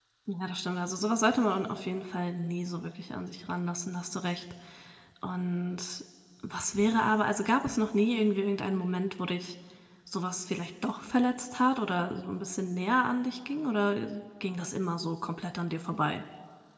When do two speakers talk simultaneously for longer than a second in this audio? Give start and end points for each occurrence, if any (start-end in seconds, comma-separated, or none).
none